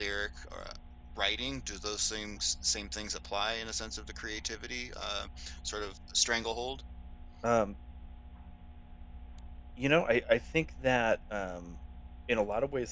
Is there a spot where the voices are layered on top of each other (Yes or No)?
No